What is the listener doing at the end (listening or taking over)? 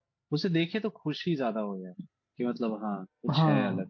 taking over